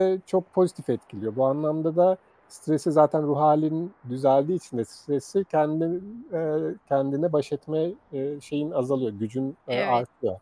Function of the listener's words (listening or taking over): taking over